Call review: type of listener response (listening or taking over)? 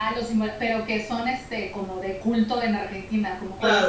taking over